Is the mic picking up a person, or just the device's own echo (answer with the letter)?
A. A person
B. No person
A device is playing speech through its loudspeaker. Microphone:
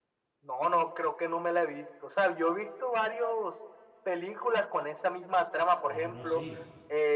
A